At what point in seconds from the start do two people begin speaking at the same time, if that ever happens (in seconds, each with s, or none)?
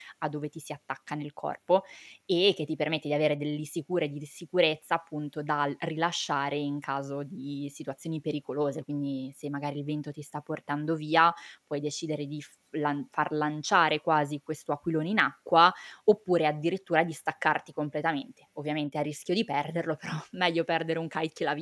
none